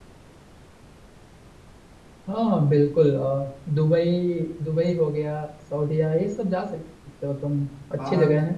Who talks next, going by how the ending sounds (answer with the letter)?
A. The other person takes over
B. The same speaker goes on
A